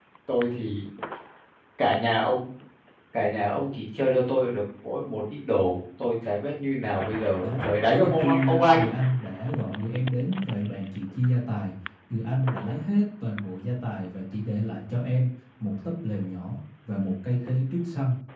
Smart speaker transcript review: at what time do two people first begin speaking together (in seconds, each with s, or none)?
7.4 s